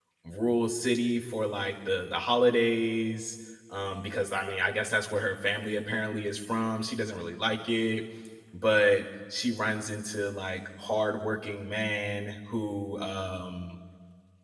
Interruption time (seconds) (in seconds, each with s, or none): none